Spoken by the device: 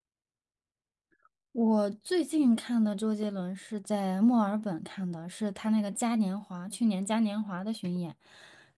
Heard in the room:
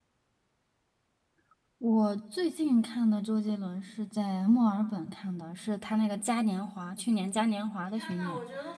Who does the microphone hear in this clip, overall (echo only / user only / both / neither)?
both